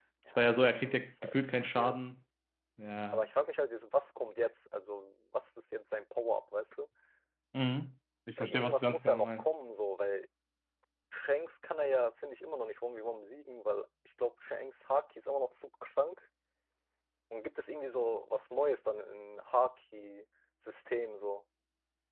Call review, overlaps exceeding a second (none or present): present